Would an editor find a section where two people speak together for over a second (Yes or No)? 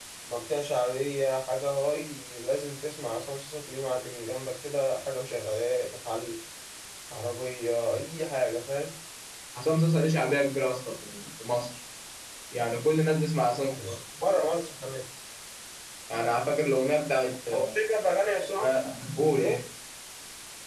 No